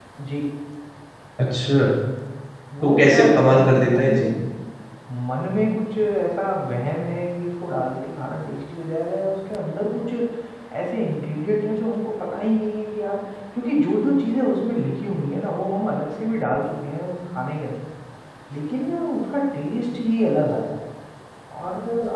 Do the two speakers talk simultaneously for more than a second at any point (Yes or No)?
Yes